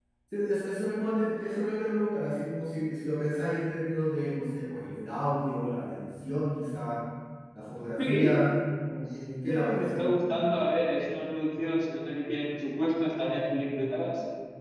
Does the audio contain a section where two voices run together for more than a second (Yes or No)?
Yes